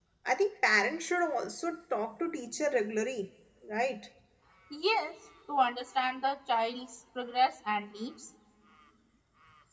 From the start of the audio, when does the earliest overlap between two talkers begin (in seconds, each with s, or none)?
none